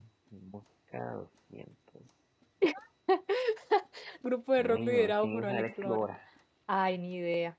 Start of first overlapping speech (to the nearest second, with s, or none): 5 s